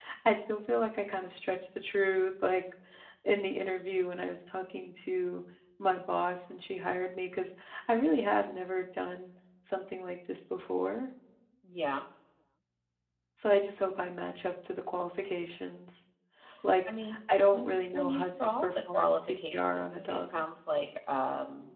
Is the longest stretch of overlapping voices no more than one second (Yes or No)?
No